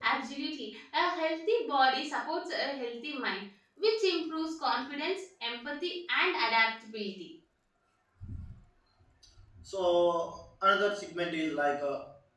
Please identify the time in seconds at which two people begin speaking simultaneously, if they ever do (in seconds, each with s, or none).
none